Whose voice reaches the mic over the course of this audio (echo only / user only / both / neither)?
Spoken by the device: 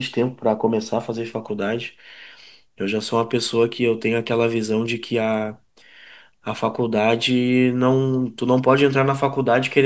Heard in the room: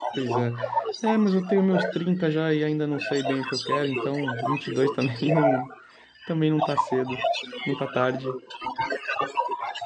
both